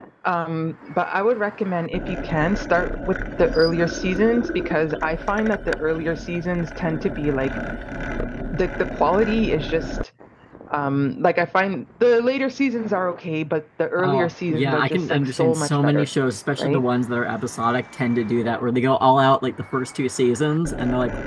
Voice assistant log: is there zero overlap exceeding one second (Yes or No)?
No